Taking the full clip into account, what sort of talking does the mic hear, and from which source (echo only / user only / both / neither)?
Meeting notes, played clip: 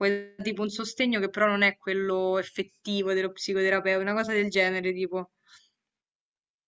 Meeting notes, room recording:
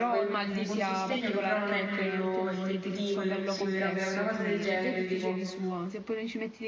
both